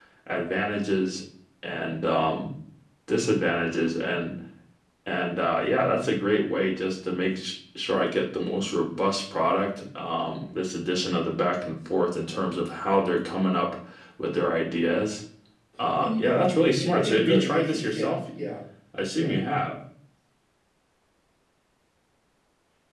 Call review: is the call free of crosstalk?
No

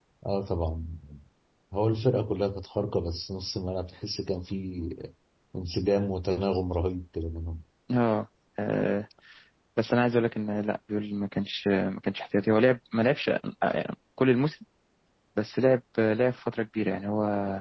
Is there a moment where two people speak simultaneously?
No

